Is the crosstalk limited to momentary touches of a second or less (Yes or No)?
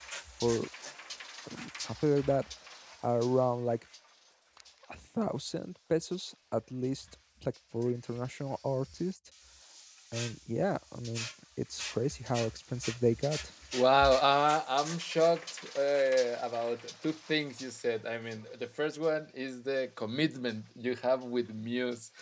Yes